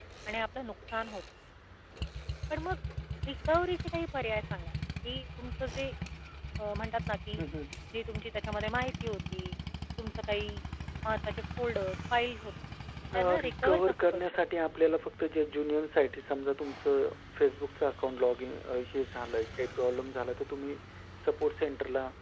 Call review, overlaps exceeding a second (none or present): present